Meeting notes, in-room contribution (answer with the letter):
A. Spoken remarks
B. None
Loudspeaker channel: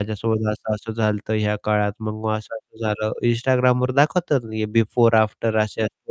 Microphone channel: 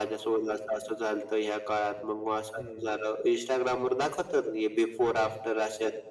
A